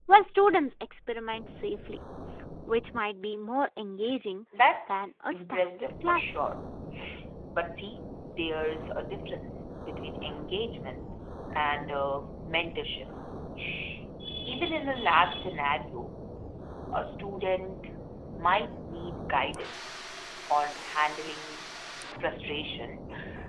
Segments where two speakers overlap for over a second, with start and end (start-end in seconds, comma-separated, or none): 4.9-6.3